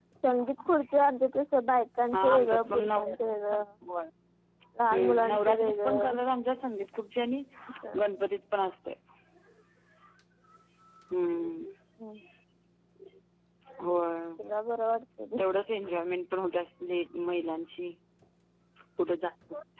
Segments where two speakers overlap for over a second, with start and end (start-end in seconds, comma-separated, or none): 2.1-3.6, 4.9-6.1